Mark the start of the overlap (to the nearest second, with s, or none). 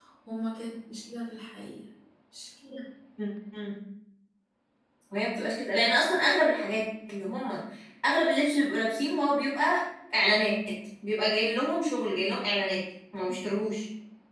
none